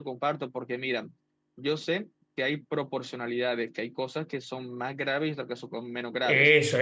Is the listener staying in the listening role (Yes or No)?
No